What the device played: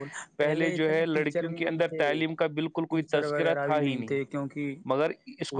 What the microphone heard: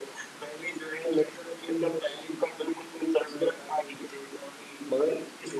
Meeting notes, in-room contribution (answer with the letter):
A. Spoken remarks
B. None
B